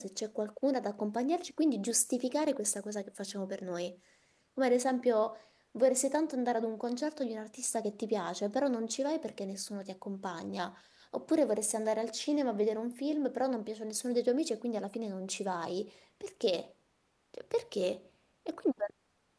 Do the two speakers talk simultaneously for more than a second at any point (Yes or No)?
No